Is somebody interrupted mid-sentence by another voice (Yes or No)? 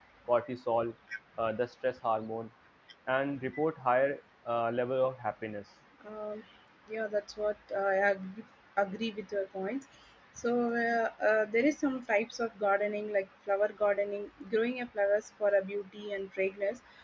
No